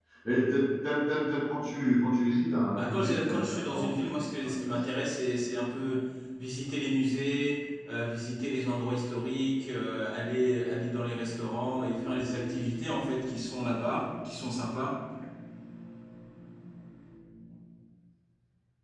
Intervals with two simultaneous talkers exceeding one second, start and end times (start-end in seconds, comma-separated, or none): 2.8-4.8